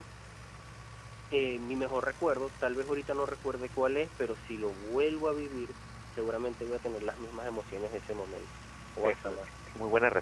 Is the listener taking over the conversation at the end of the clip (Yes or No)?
Yes